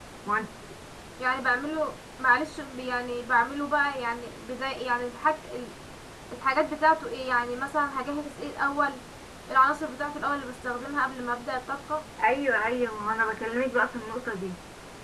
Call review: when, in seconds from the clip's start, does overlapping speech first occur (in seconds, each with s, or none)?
none